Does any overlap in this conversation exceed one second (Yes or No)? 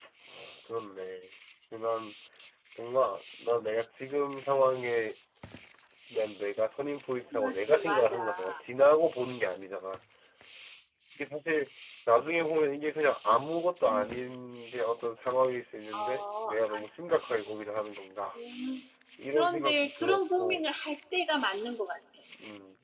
Yes